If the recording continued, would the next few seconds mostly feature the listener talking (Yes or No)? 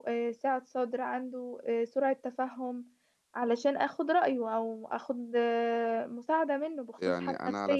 Yes